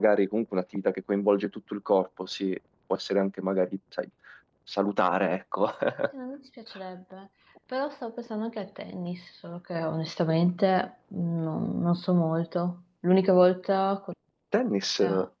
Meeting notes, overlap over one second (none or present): none